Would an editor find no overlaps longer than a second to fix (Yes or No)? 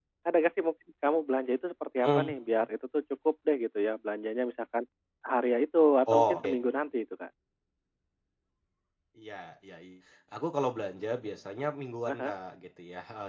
Yes